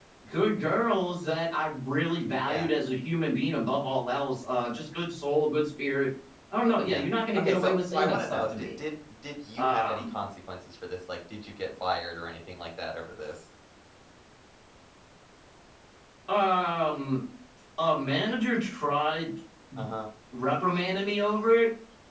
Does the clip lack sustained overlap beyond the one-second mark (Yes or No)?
No